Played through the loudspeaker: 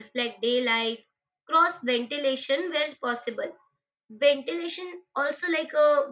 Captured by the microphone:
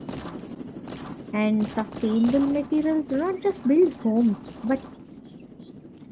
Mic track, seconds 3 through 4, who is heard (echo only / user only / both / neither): user only